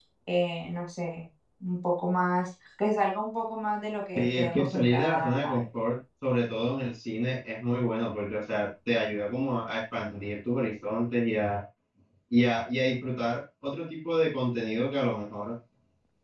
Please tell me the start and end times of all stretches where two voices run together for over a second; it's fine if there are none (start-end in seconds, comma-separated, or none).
4.2-5.6